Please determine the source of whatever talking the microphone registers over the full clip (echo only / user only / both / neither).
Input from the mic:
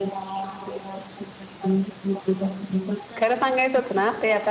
both